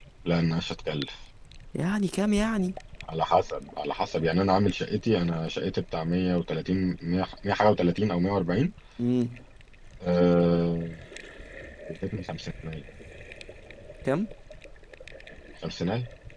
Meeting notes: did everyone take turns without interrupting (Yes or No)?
Yes